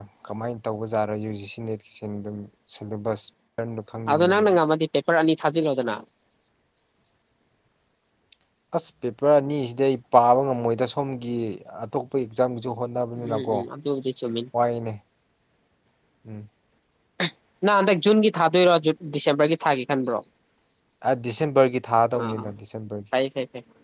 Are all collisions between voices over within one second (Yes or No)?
Yes